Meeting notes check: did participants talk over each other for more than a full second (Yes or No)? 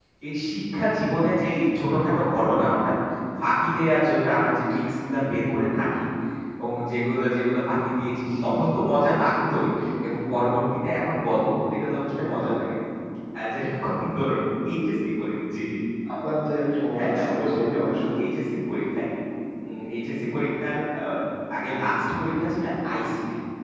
Yes